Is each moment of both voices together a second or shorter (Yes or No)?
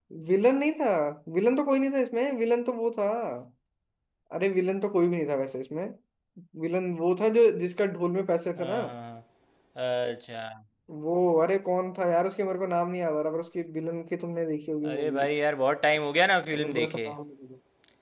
Yes